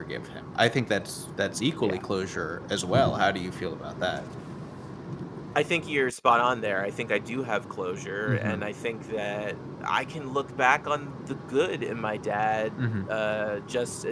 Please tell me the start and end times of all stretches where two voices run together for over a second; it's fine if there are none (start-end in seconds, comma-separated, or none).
none